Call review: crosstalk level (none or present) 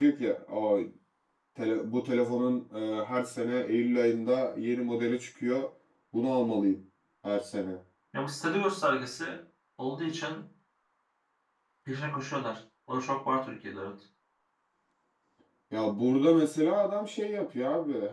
none